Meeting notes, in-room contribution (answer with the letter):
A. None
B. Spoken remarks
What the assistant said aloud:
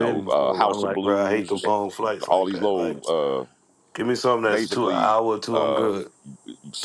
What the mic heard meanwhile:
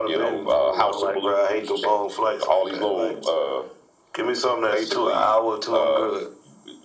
A